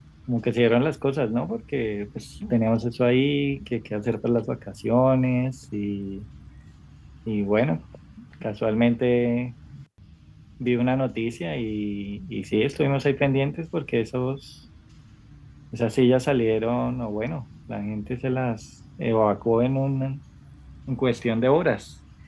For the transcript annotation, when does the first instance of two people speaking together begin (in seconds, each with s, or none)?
none